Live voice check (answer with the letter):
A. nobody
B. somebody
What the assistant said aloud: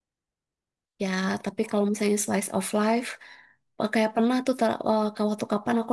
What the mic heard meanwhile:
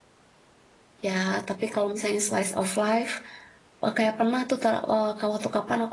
A